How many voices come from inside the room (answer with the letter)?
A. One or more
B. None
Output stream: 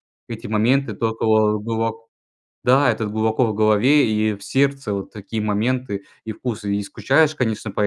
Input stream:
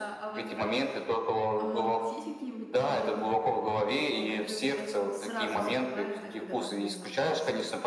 A